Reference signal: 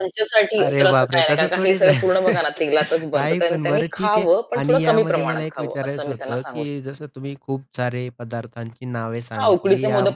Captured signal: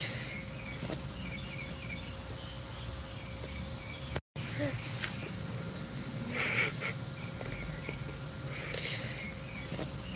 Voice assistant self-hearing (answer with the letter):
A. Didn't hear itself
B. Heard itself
A